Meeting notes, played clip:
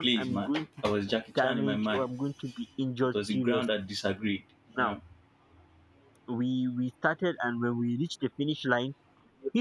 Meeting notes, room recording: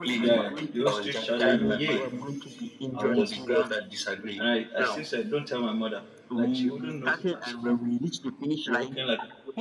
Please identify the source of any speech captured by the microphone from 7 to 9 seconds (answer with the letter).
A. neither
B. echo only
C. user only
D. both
D